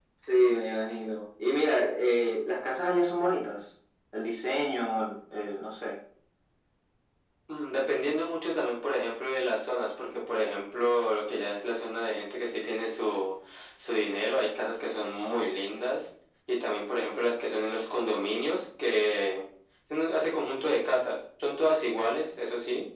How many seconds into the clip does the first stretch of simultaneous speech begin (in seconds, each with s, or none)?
none